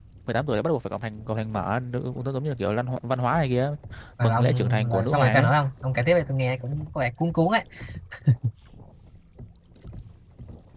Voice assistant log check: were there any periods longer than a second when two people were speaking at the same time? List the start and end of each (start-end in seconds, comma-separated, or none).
4.2-5.5